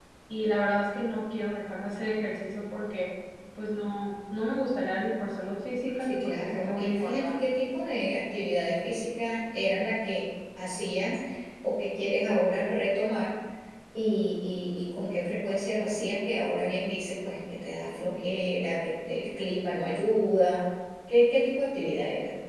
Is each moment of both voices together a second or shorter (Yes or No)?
No